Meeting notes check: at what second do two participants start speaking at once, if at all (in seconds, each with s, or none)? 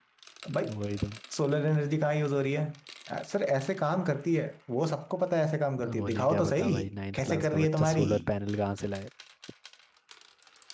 5.8 s